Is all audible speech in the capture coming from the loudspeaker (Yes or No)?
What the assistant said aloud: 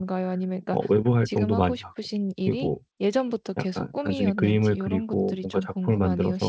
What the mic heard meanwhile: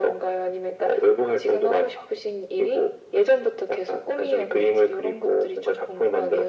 Yes